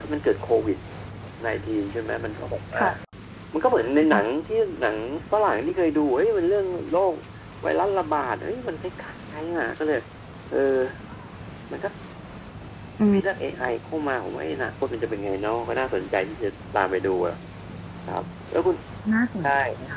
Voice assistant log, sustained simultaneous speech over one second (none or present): none